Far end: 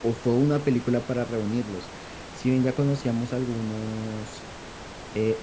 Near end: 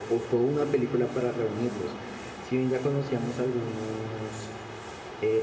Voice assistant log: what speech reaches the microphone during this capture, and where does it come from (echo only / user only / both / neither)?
echo only